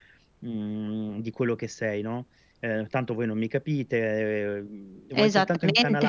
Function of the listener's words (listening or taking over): listening